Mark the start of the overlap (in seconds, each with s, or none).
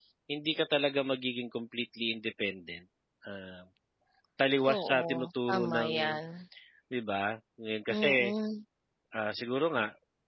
4.7 s